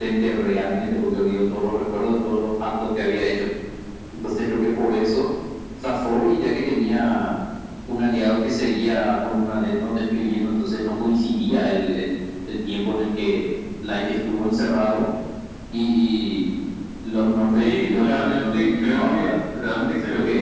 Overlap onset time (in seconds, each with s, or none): 17.6 s